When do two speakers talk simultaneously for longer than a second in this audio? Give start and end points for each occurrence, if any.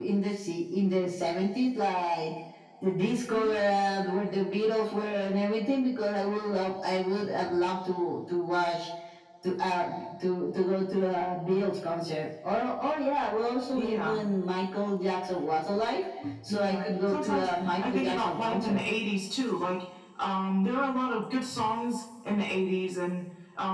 16.5-18.8

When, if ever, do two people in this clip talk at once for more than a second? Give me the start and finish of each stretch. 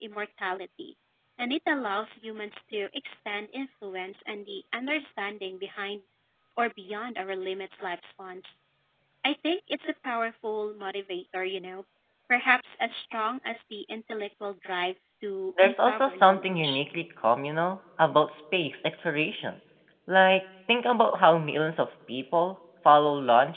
15.6-16.8

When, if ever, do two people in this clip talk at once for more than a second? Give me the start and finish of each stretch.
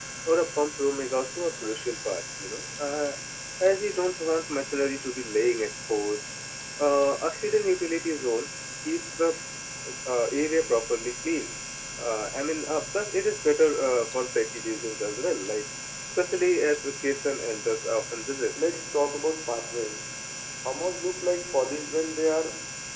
none

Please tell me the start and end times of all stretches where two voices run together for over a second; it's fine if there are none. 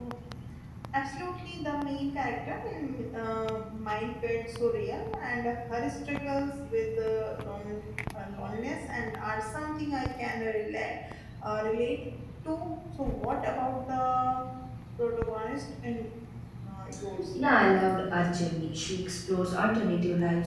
none

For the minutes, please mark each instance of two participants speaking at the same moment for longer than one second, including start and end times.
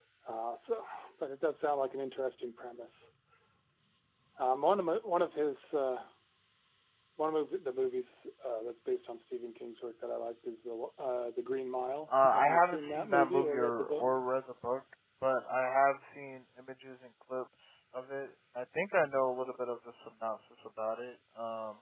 12.1-14.1

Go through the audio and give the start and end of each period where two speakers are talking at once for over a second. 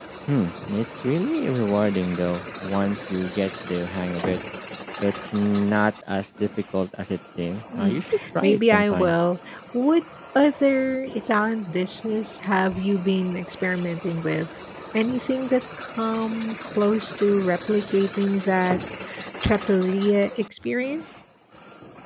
7.8-9.1

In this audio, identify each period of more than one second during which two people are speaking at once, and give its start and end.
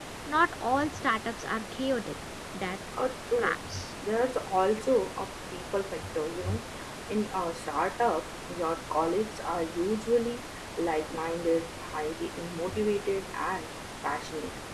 none

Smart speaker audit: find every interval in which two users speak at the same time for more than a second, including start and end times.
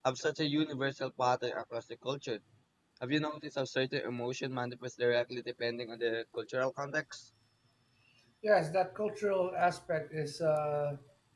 none

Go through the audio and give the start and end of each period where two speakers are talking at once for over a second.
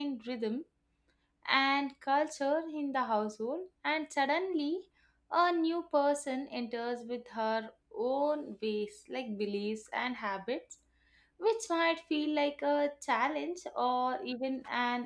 none

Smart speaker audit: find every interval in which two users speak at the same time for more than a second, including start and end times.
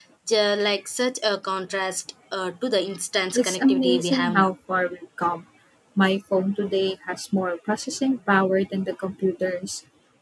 3.3-4.5

